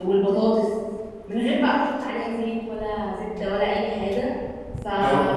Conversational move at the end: taking over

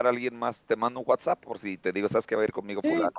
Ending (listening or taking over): taking over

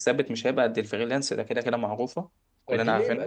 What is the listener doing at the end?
taking over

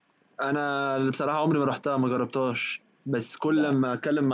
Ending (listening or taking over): listening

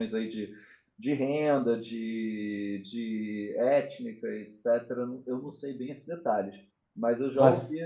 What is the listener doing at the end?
listening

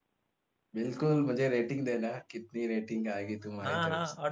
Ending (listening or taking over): taking over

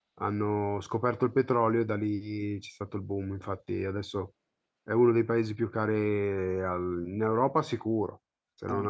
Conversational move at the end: taking over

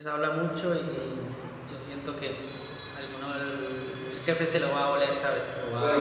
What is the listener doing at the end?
taking over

